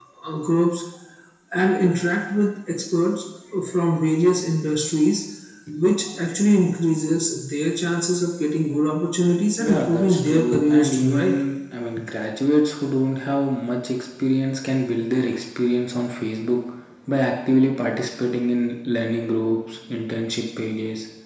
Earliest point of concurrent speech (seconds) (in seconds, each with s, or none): 9.6 s